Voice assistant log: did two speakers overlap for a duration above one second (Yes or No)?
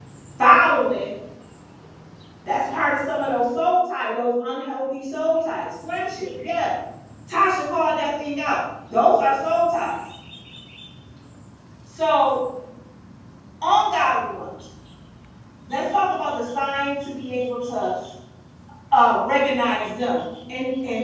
No